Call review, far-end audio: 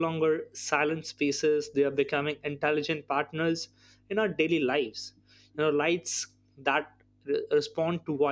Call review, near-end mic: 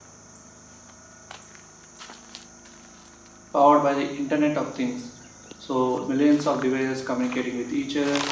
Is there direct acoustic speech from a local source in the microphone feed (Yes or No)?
Yes